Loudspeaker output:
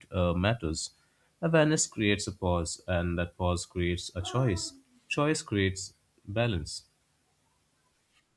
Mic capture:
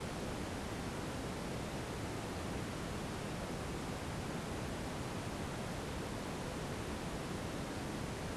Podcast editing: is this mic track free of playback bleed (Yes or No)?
Yes